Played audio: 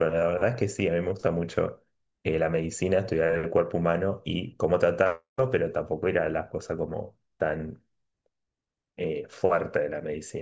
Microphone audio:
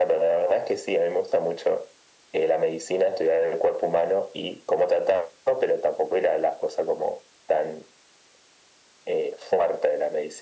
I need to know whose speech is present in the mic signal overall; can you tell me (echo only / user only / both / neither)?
echo only